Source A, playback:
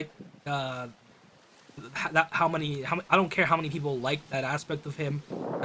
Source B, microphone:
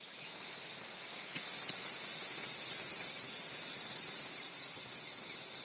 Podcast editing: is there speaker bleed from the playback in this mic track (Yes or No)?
No